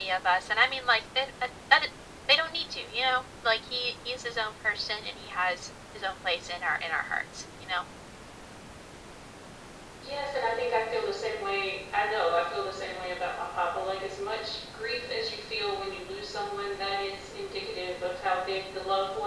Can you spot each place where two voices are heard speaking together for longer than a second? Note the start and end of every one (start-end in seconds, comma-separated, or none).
none